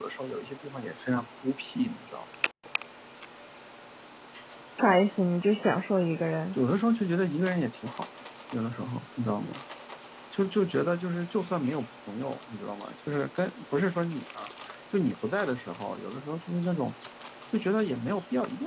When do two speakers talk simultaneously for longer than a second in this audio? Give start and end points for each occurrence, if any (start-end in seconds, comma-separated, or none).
none